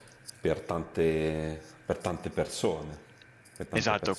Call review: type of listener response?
taking over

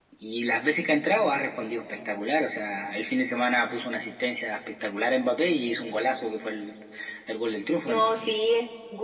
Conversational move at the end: taking over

